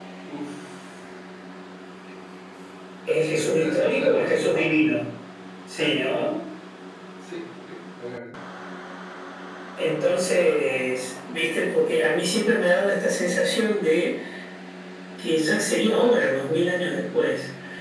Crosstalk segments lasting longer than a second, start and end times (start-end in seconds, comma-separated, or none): 3.3-4.8